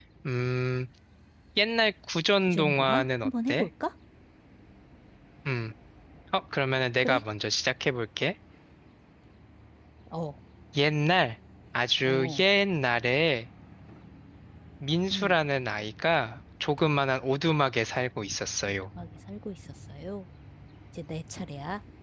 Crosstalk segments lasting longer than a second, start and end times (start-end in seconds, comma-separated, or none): 2.5-3.7